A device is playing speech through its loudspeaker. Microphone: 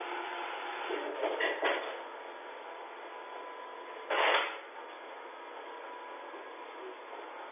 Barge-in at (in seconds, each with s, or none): none